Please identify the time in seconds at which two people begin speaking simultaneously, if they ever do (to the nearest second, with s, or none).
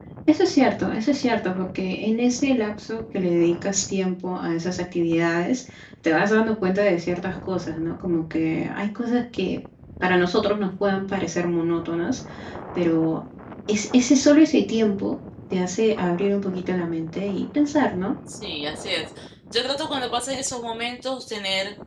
none